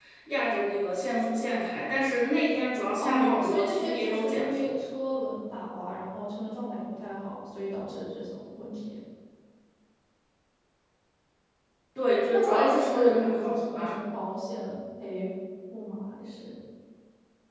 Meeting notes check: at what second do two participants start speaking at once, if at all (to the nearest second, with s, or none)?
3 s